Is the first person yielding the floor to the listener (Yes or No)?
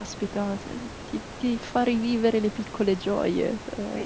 Yes